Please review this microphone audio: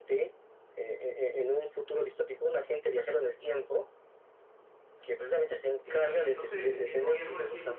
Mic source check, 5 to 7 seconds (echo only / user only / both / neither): both